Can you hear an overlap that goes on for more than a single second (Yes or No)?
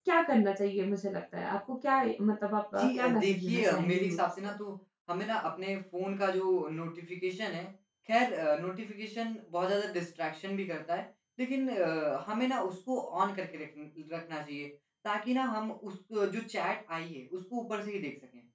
Yes